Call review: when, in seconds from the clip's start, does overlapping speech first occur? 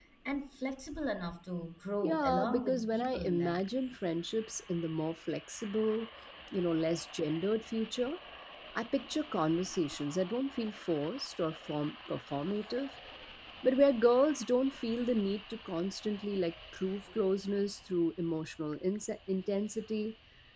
2.0 s

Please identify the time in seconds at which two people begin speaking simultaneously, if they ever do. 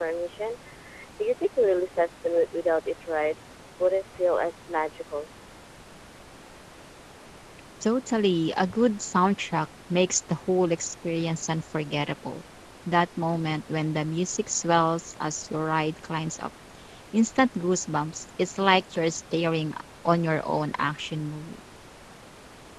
none

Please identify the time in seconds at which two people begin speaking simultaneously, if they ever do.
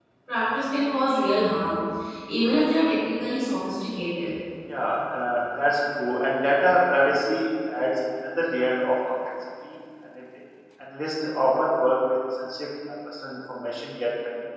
none

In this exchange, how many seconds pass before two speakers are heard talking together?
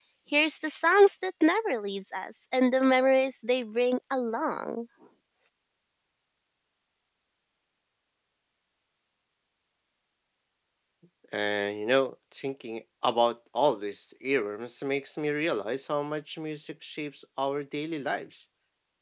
none

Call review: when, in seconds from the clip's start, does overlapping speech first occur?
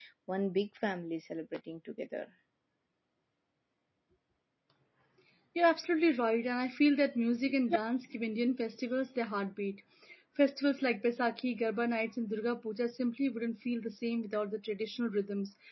none

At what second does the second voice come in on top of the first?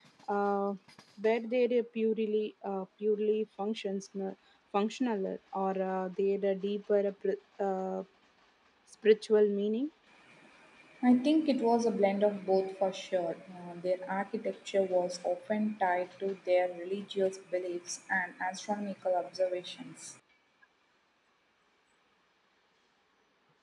none

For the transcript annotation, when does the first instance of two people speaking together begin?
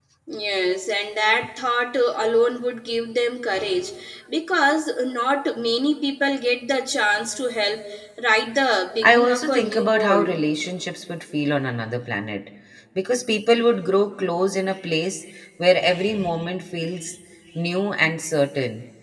9.0 s

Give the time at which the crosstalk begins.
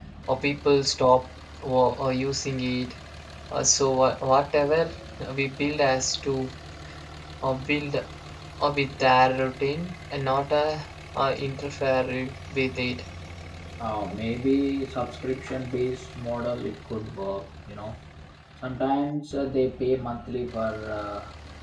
none

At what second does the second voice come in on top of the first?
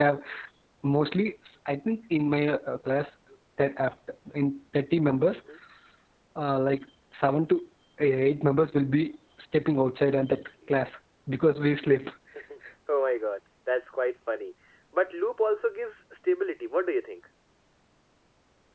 none

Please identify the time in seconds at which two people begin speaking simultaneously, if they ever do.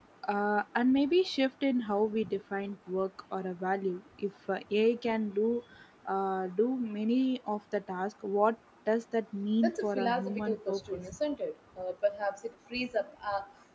9.6 s

